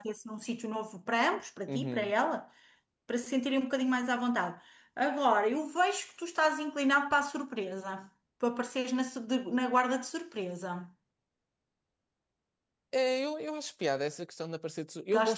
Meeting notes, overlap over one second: none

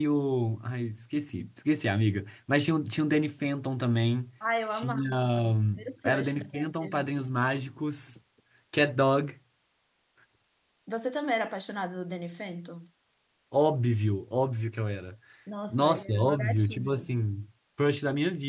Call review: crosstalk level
present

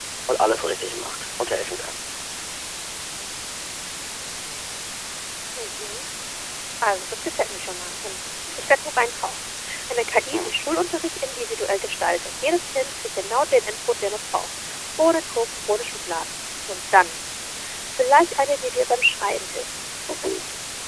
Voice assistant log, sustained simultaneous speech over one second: none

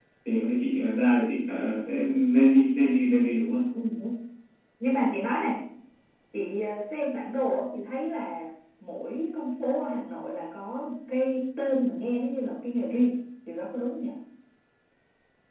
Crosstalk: none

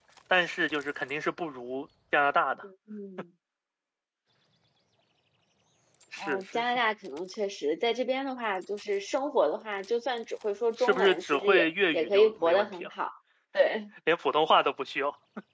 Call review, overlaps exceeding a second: present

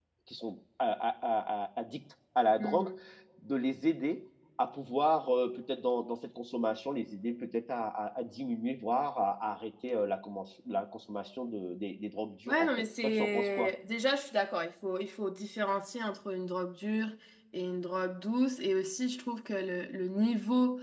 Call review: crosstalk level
present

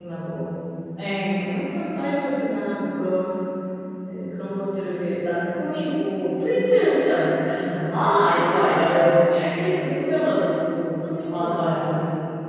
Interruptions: present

